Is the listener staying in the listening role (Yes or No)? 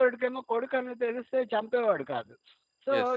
Yes